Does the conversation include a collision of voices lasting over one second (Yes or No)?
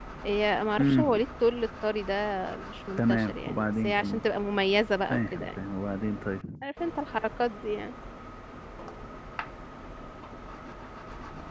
Yes